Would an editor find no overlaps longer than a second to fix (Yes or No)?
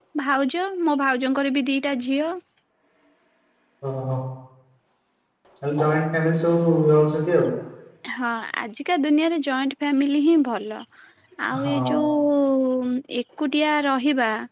Yes